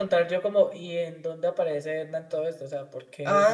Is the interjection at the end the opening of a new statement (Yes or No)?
Yes